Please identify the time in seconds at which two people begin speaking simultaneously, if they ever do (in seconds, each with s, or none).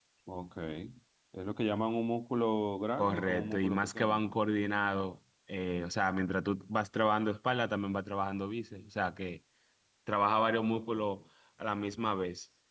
3.0 s